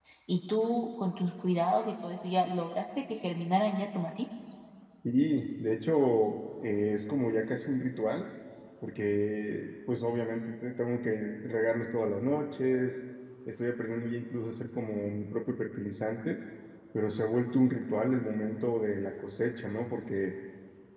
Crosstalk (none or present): none